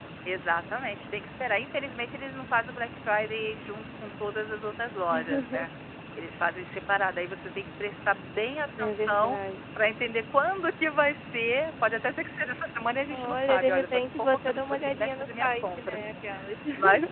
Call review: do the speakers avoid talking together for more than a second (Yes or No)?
No